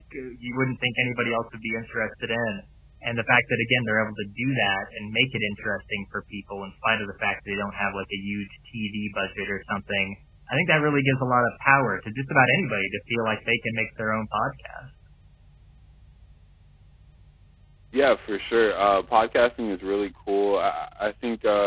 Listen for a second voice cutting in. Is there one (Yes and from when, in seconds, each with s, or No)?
No